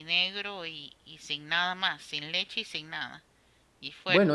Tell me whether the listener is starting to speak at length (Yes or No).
Yes